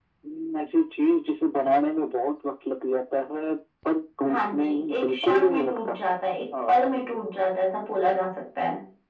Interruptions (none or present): present